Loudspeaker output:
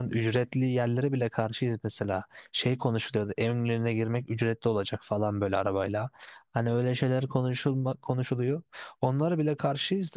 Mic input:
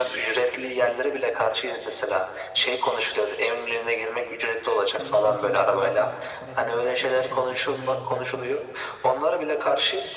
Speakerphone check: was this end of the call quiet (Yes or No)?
No